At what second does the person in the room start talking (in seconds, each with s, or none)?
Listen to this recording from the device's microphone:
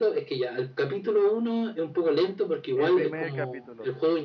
2.8 s